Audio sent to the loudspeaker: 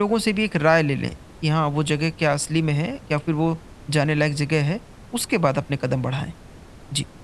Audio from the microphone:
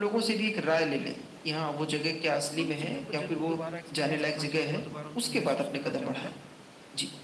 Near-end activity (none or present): present